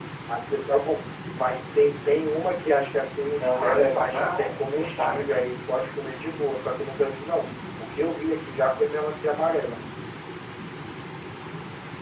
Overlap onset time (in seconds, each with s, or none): 3.4 s